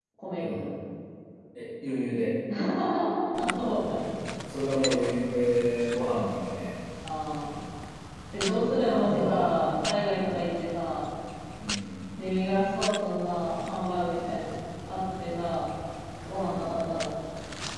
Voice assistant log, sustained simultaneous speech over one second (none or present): present